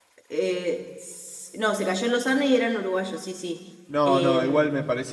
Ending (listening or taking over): taking over